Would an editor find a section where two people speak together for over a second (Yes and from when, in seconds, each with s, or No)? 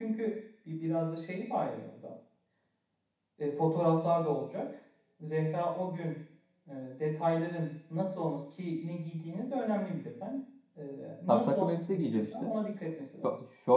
Yes, from 11.3 s